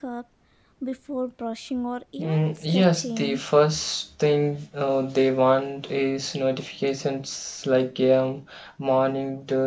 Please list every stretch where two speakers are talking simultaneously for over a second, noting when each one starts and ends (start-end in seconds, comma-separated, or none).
2.2-3.4